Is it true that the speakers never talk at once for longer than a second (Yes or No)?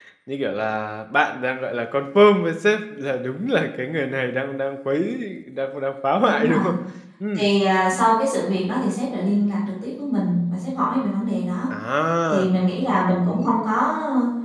Yes